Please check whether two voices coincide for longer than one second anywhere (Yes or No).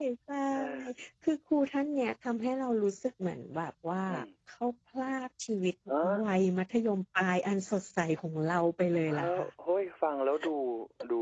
No